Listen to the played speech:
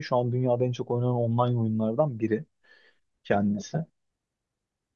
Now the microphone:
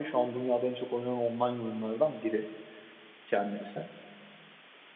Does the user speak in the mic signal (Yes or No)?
No